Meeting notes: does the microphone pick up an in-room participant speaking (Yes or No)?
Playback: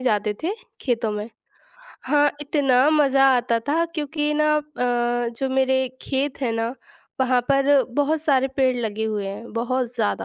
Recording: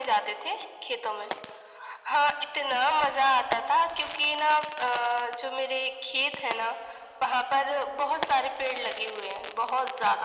No